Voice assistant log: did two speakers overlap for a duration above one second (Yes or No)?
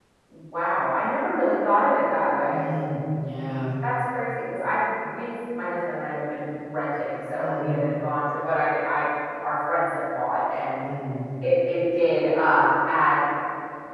No